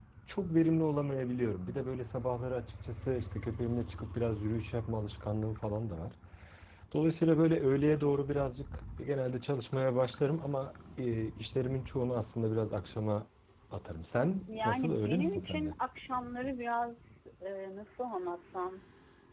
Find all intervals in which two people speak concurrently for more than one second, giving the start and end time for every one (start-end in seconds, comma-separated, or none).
14.5-15.7